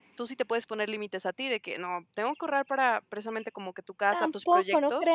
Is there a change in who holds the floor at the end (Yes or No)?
Yes